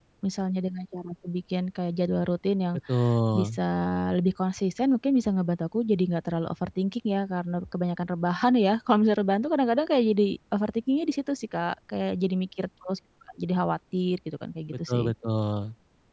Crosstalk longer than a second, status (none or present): none